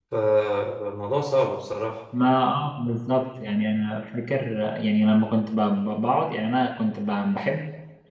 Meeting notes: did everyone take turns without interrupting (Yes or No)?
Yes